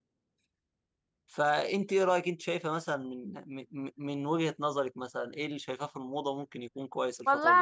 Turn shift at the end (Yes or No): Yes